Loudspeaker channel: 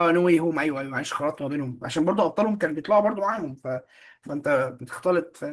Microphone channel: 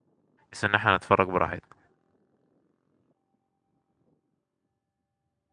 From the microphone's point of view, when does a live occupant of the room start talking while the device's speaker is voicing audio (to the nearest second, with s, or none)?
1 s